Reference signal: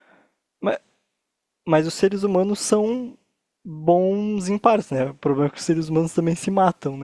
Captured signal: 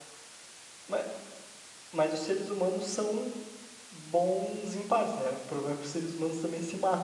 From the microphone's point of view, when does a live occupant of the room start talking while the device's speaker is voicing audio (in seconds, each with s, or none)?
none